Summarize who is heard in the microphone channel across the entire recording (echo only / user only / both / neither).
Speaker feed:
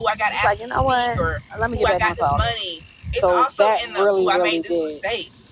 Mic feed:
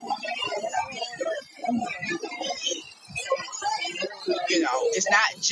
both